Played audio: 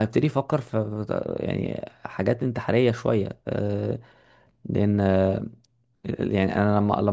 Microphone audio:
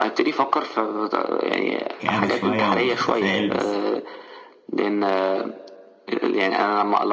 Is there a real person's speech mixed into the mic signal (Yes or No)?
Yes